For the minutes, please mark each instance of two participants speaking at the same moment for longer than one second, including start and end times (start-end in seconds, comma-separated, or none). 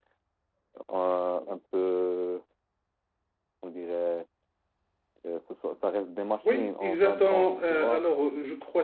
6.4-8.0